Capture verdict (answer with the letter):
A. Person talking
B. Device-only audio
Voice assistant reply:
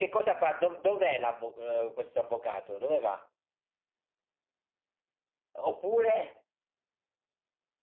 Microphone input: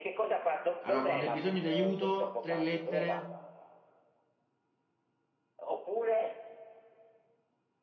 A